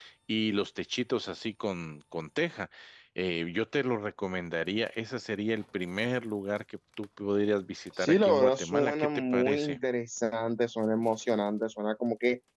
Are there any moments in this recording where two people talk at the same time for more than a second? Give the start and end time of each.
8.0-9.8

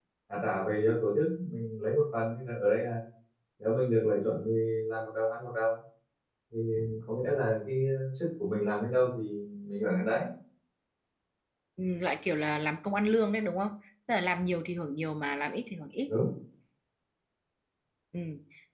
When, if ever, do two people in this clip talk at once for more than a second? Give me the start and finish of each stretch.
none

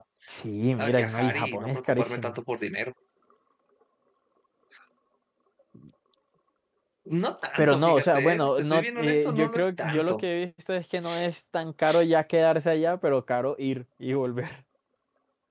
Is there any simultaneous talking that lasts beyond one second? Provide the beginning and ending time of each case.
0.8-2.4, 7.6-10.2

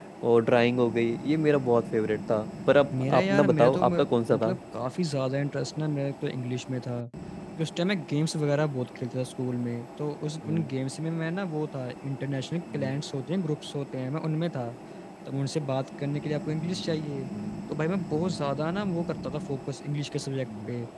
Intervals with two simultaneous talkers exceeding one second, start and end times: 3.0-4.4

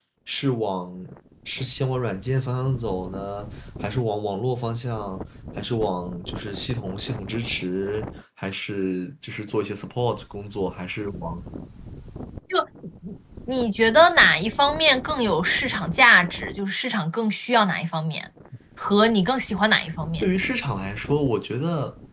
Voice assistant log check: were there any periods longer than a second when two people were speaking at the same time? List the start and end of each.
none

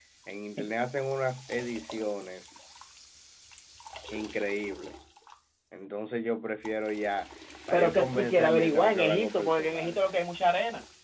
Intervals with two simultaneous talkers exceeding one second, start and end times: 7.7-10.0

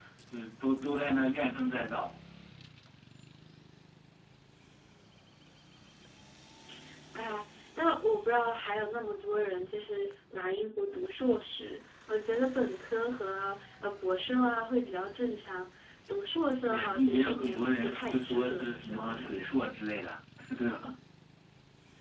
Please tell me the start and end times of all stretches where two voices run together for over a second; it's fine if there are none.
16.7-19.4

